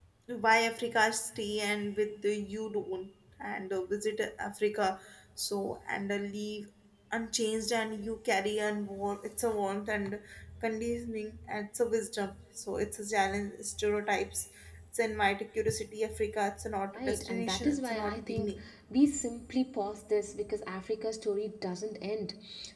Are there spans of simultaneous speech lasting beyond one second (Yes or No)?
Yes